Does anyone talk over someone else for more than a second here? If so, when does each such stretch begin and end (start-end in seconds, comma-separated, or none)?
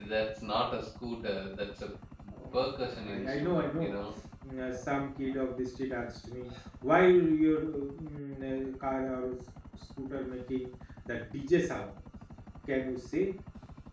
2.5-3.9